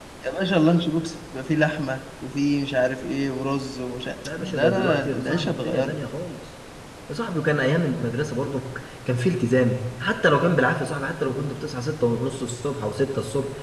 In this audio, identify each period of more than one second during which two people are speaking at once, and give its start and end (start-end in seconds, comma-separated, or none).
4.4-6.0